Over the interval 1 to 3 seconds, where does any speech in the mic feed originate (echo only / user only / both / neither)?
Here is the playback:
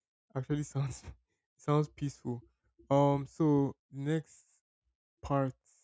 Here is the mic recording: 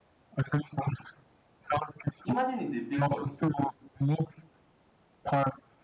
both